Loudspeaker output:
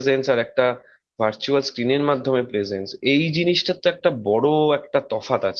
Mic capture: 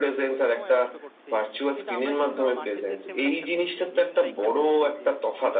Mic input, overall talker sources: both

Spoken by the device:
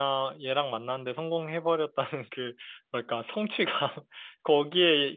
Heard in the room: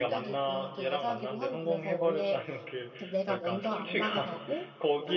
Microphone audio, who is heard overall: both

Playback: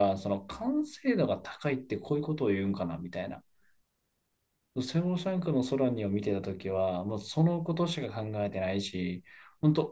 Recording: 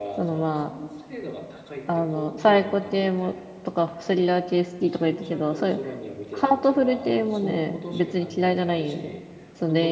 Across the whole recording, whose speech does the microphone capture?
both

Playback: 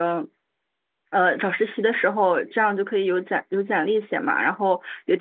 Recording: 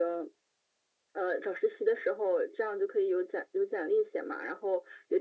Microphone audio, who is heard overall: echo only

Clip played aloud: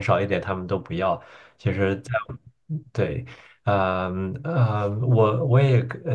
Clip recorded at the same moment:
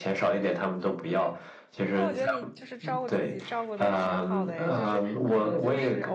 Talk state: both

